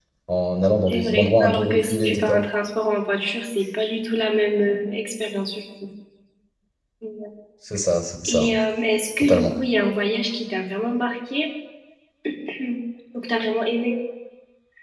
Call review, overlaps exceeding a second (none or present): present